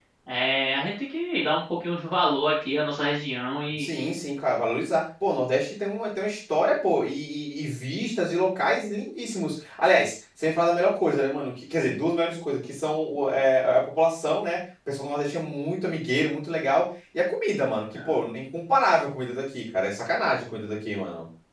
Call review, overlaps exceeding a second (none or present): none